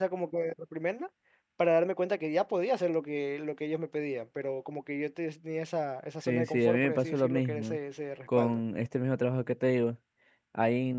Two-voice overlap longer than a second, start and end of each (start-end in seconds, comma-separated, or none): 6.3-7.8